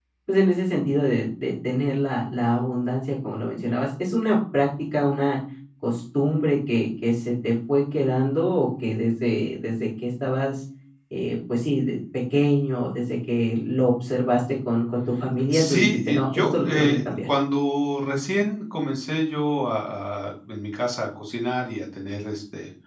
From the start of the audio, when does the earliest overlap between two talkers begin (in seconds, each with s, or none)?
15.5 s